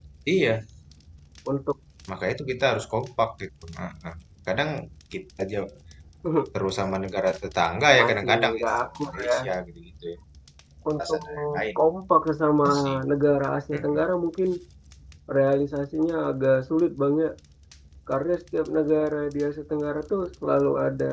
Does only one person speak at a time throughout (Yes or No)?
No